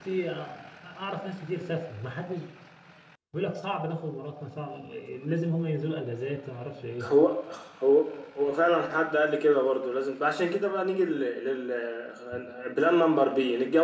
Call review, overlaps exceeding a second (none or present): none